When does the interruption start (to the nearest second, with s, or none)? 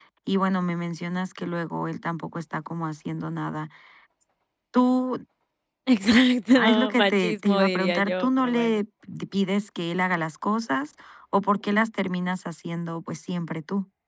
7 s